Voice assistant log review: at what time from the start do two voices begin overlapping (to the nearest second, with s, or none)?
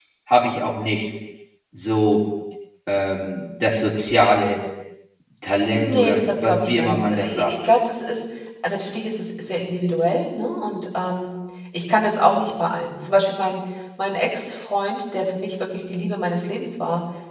6 s